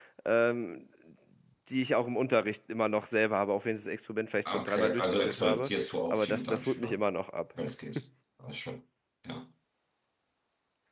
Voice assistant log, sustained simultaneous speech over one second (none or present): present